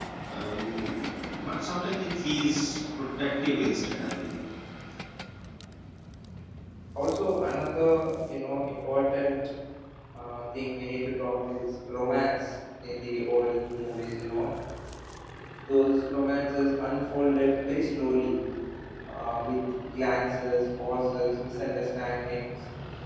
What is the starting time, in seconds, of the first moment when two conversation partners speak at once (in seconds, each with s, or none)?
none